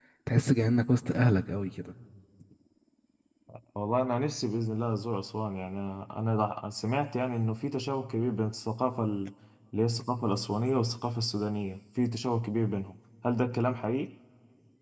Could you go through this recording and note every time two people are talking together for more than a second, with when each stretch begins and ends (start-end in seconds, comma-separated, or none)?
none